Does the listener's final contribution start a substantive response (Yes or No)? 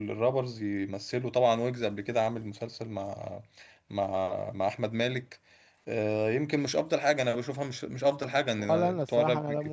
Yes